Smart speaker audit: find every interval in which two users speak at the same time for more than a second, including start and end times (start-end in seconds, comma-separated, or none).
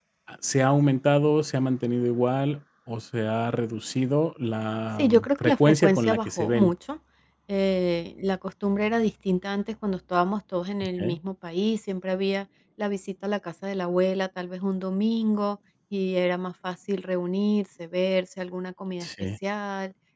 5.0-6.7